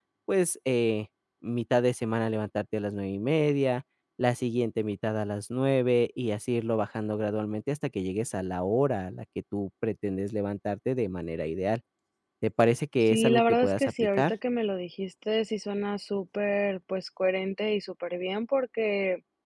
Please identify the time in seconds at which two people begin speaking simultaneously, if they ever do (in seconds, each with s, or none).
13.1 s